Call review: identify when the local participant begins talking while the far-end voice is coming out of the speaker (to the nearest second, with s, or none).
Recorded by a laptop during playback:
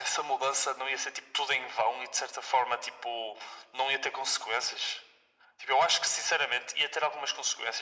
none